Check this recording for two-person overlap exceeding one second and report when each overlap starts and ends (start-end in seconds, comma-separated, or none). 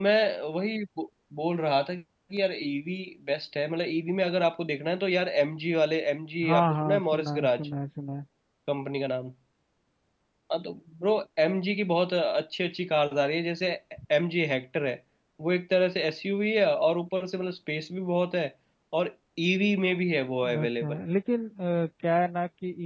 6.4-7.7